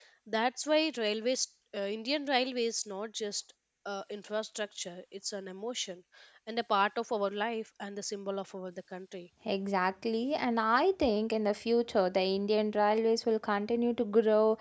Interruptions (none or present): none